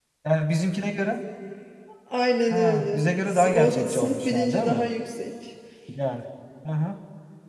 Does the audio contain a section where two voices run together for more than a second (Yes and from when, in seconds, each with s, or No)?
Yes, from 2.5 s